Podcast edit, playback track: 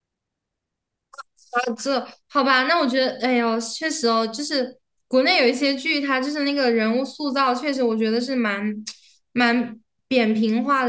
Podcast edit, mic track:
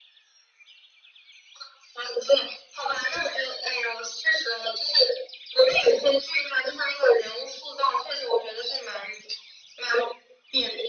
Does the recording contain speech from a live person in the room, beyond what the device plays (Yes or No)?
No